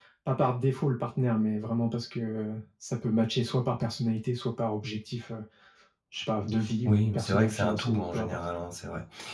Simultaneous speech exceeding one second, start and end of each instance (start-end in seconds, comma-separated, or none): 6.8-8.4